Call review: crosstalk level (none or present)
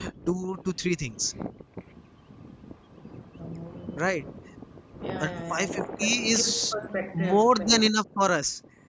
present